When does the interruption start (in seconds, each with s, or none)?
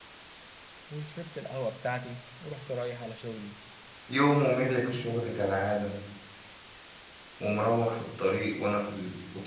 none